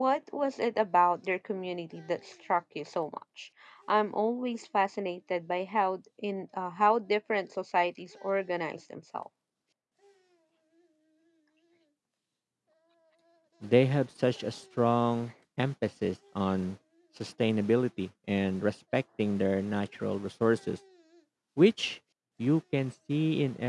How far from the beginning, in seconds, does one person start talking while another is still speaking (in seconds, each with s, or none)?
none